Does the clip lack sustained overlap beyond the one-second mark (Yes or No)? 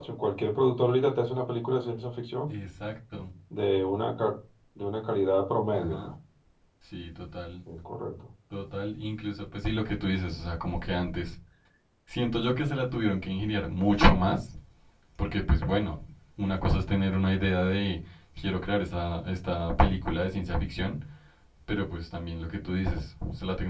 Yes